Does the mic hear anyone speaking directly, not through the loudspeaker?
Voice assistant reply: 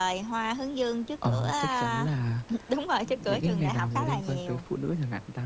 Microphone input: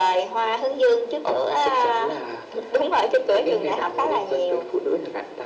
No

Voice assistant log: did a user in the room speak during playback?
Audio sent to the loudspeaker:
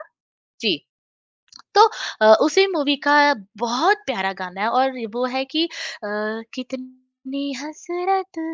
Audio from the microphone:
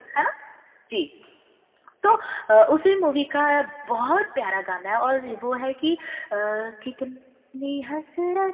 No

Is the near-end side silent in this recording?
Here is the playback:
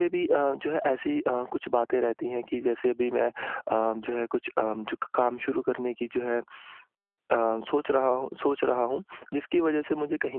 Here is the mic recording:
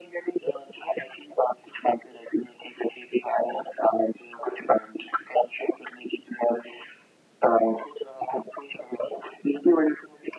Yes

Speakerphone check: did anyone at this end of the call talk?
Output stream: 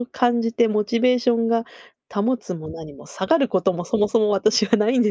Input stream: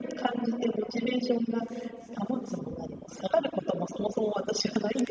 No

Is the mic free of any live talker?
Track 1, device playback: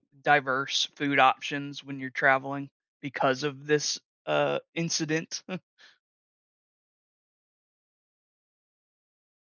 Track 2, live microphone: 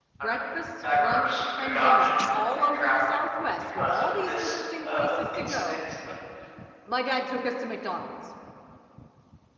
No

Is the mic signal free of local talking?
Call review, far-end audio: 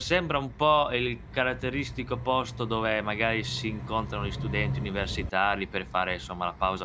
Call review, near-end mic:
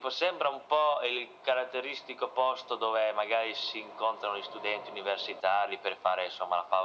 Yes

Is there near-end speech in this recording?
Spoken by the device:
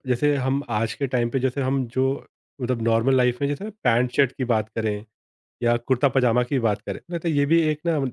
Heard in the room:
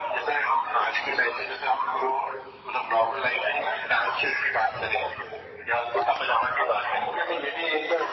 Yes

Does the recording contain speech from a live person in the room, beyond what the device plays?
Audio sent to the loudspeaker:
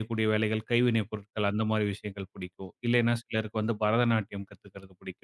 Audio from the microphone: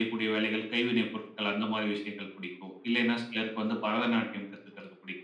No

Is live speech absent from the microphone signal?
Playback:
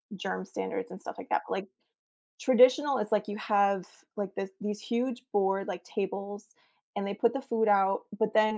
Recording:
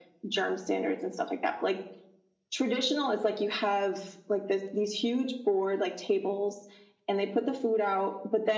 Yes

